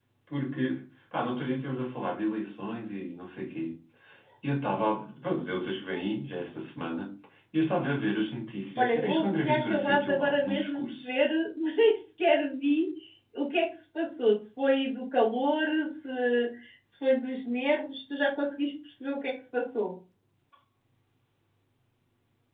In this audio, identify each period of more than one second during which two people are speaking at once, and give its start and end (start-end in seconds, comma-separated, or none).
8.8-11.1